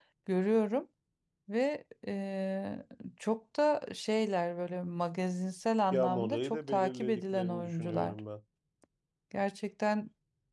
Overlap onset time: 6 s

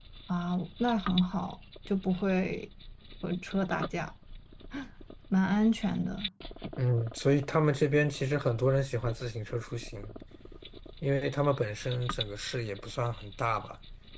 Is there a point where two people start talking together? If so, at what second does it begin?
none

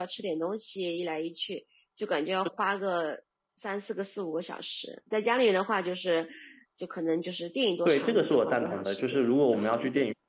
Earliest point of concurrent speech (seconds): 8 s

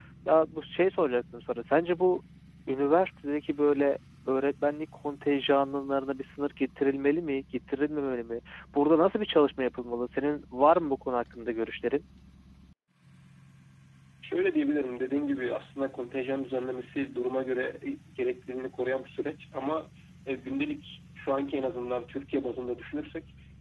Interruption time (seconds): none

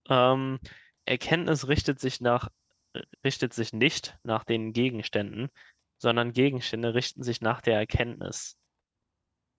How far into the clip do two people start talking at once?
none

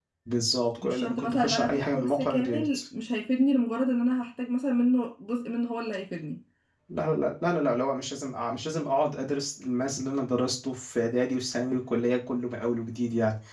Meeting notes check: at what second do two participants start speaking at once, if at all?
1 s

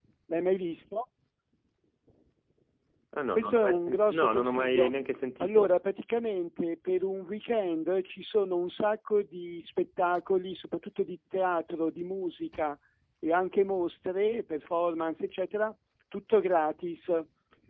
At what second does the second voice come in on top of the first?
3 s

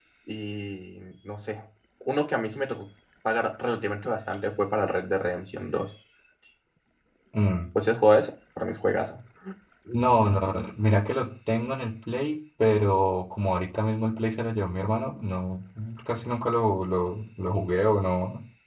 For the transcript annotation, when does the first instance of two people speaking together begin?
none

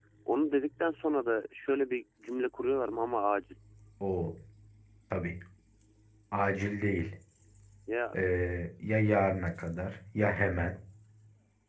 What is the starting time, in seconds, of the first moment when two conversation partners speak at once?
none

